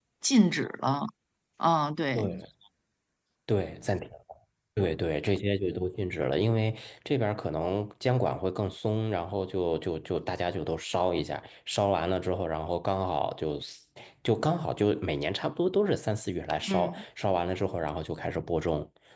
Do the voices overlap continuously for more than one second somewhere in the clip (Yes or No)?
No